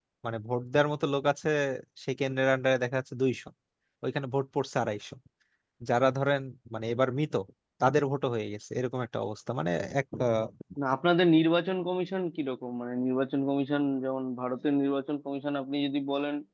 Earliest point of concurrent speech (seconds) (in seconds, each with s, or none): none